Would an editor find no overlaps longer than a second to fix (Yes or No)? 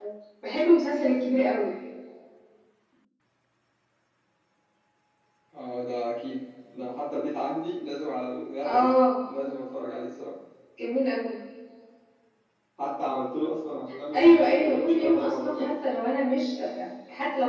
No